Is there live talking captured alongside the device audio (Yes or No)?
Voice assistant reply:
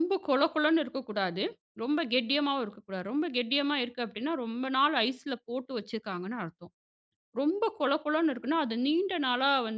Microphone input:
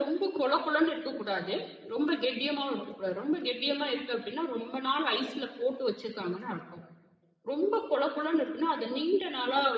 No